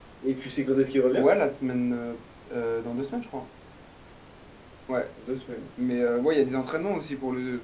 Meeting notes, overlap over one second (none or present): none